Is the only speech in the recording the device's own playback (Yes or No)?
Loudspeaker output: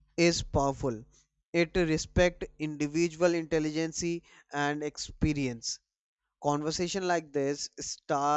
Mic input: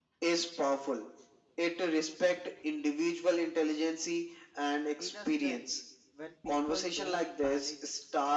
No